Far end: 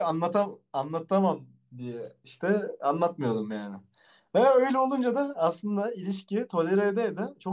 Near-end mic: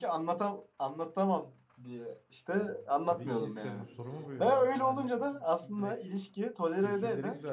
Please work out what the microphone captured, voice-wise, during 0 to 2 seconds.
echo only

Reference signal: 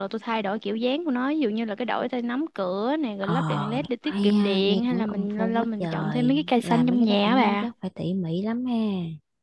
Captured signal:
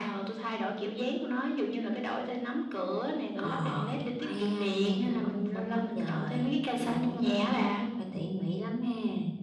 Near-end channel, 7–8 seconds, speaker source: echo only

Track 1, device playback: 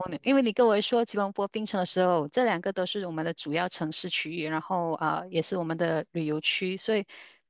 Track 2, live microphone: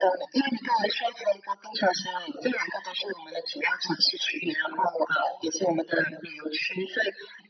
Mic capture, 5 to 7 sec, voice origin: echo only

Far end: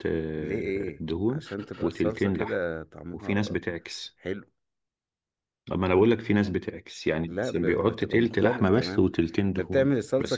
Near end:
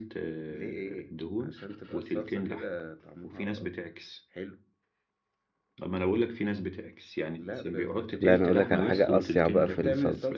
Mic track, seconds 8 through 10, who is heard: both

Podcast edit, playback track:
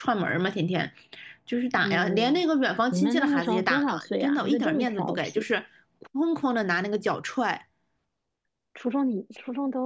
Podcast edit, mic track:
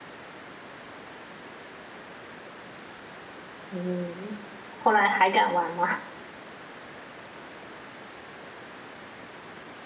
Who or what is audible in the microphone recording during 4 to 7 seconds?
user only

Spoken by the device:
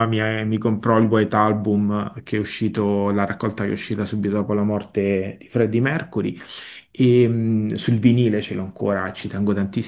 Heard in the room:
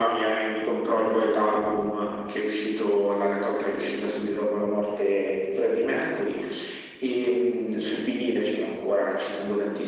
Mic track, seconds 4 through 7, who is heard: echo only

